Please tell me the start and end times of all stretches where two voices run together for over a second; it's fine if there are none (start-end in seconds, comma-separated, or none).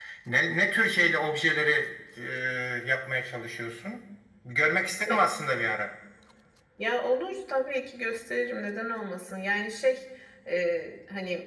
none